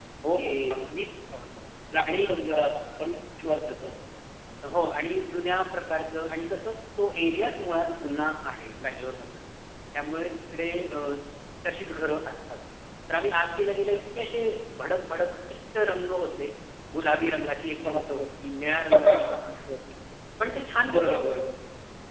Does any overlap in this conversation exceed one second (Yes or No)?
No